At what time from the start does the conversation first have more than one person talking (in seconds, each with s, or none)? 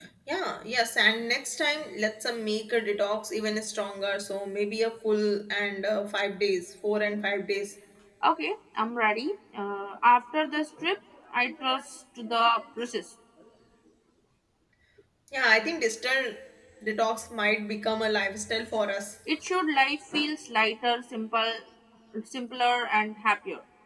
none